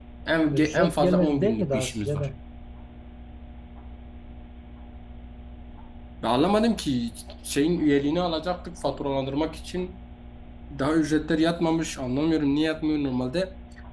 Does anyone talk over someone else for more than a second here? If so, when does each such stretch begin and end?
0.5-2.3

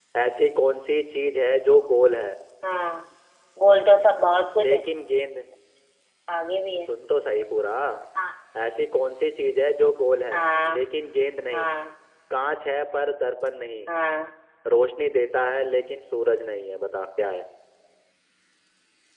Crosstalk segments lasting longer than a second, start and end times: none

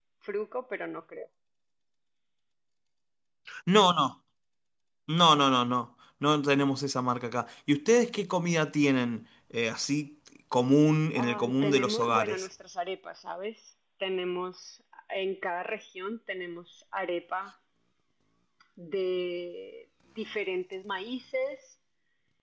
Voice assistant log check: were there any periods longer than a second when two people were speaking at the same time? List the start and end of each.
11.2-12.5

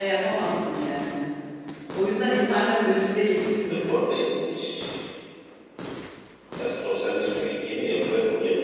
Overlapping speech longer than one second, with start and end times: none

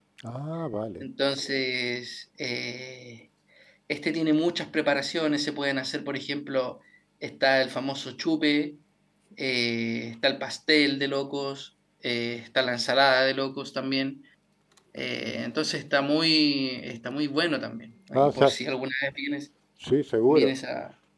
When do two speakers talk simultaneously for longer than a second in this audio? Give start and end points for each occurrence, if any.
none

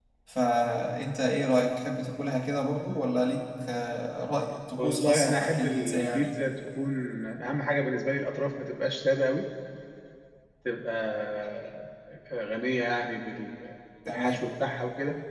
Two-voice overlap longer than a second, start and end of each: 4.8-6.3

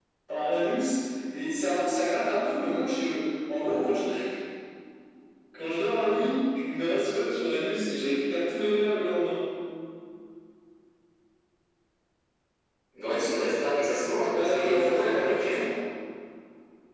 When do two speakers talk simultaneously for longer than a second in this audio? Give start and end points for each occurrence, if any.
14.1-15.4

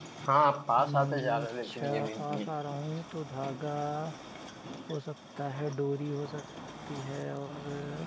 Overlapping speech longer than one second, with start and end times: 0.8-2.5

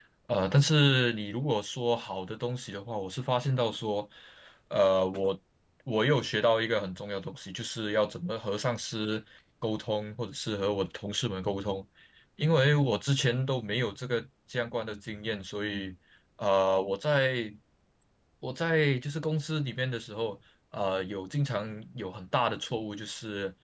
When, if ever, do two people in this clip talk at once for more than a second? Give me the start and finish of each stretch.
none

